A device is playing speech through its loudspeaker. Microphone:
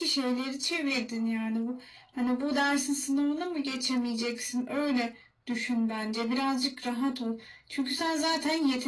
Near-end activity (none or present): none